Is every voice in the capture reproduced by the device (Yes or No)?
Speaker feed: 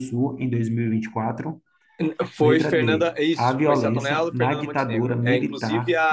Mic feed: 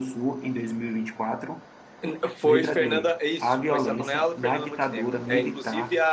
Yes